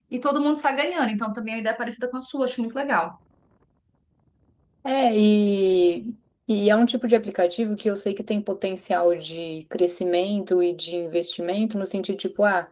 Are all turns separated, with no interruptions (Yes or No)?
Yes